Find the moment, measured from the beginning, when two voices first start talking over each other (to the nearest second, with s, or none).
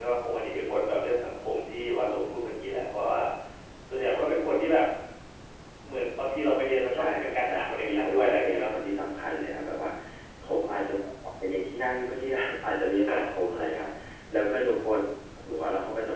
7 s